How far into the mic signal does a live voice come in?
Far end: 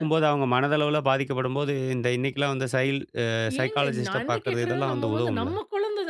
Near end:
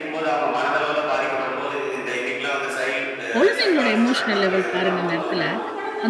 3.4 s

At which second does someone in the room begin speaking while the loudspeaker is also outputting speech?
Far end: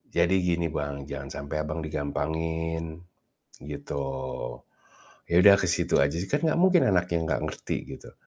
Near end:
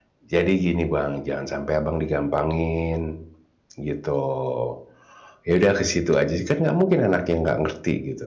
none

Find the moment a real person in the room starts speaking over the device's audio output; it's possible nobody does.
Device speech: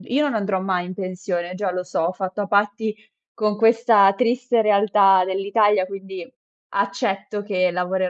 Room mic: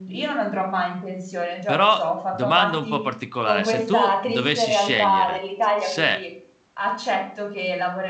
1.6 s

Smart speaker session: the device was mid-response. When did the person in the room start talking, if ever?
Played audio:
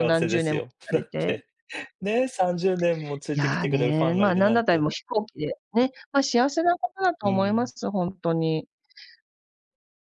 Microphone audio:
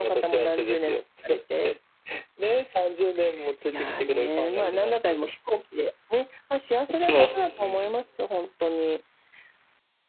6.9 s

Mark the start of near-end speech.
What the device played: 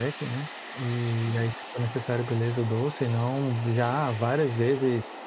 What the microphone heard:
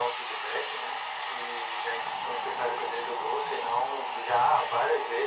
none

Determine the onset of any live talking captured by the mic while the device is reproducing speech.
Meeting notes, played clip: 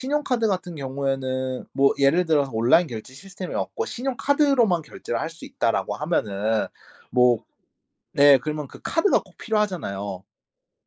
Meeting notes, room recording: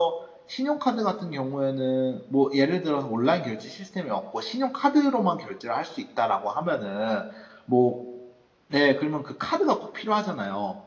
none

